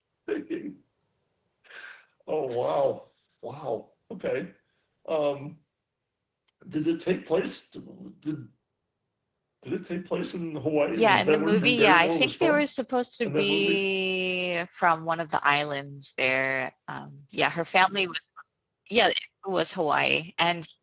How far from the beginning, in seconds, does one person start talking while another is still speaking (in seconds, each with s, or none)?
11.0 s